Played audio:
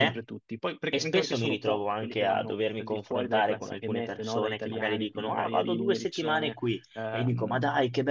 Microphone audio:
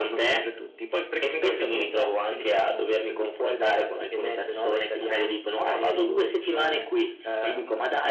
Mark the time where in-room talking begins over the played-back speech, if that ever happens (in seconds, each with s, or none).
none